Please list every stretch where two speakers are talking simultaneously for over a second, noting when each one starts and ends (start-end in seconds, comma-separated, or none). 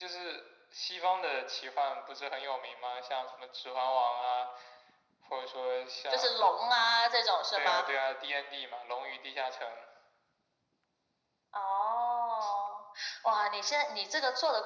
none